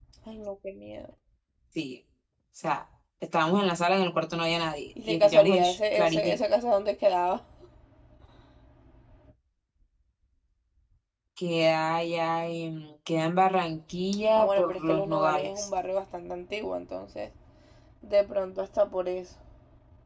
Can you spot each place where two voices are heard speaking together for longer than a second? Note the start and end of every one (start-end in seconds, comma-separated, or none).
5.0-6.4, 14.3-15.7